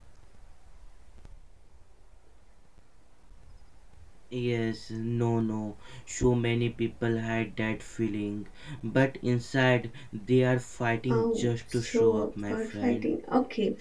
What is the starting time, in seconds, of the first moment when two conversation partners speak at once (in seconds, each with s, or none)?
11.1 s